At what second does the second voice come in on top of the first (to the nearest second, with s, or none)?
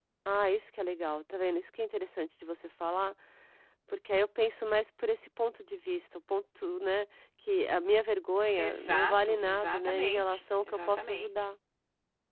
9 s